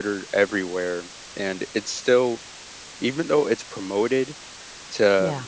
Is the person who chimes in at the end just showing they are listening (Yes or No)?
Yes